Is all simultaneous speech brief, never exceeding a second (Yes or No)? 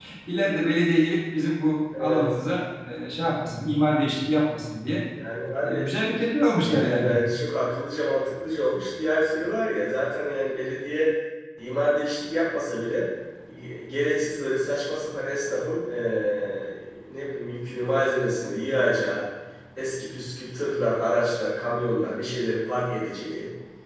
Yes